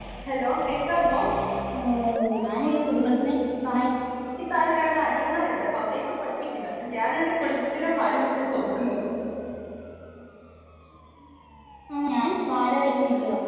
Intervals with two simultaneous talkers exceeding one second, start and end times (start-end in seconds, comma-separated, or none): none